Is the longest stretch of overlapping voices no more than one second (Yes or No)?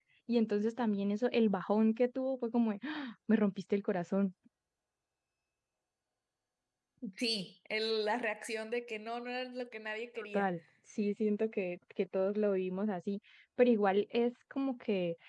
Yes